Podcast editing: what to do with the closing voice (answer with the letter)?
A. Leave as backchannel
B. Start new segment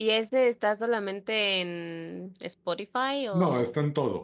B